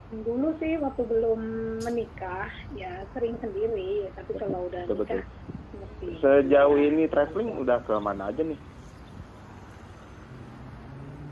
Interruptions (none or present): present